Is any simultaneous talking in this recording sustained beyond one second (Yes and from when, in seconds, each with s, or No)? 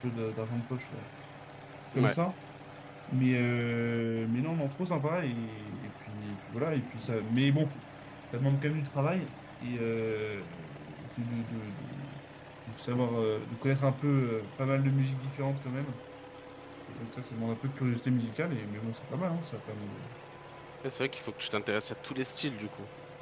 No